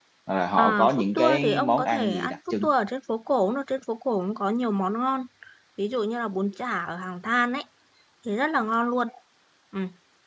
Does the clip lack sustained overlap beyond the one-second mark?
No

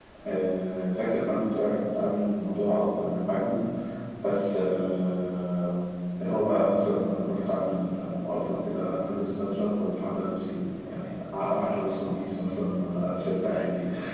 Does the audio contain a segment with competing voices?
No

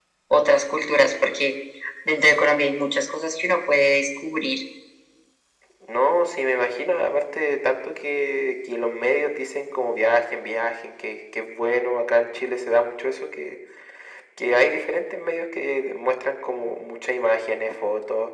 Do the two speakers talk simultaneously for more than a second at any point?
No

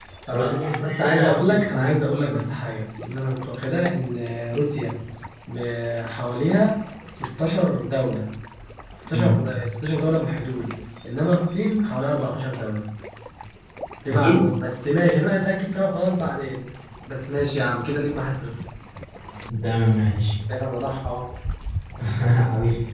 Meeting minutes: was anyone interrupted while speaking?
Yes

